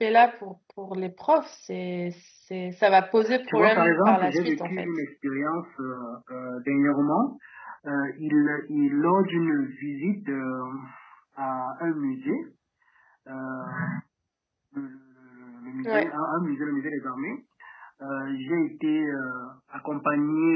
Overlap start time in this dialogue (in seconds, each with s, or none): 3.5 s